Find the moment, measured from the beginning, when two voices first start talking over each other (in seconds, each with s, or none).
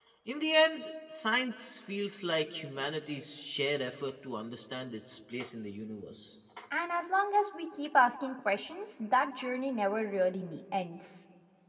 none